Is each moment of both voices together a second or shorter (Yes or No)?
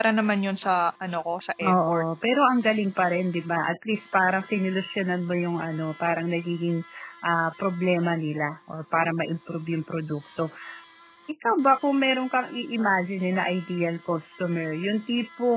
Yes